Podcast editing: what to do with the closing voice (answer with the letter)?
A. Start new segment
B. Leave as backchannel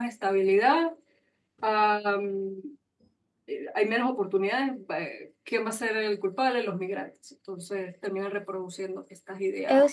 A